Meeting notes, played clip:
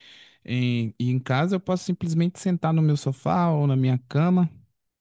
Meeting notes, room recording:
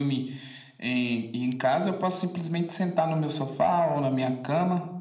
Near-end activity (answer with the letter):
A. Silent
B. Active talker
A